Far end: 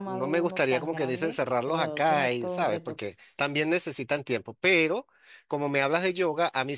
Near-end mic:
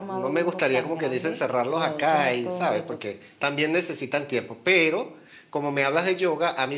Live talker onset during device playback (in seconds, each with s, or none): none